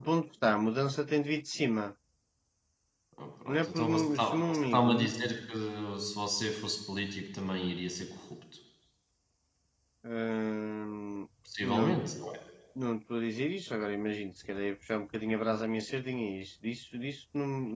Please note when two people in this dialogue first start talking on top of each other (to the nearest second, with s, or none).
3 s